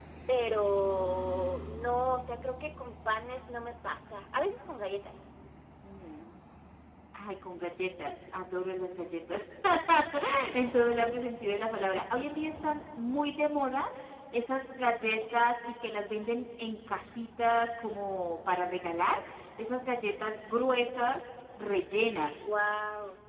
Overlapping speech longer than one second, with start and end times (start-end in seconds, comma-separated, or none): none